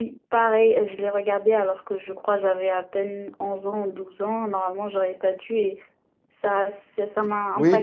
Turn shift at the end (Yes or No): Yes